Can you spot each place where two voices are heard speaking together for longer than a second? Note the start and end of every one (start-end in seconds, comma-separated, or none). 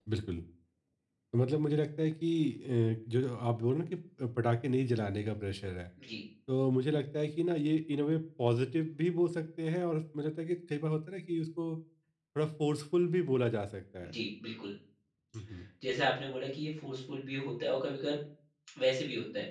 none